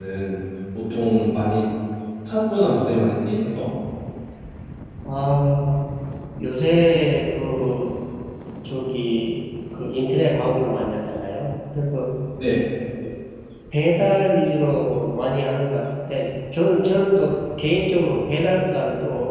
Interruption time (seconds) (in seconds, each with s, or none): none